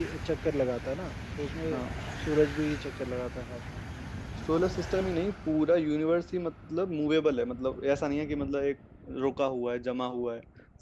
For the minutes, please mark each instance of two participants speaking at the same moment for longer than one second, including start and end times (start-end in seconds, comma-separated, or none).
none